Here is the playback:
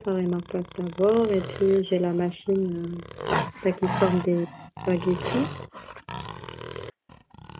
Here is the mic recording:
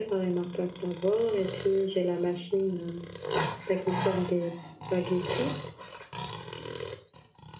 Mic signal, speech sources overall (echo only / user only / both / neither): echo only